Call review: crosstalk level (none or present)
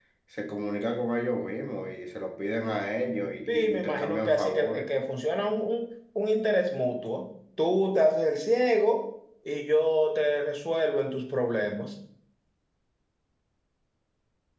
present